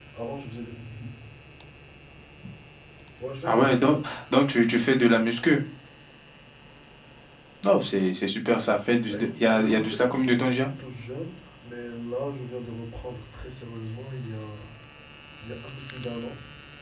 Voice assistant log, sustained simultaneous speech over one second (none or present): present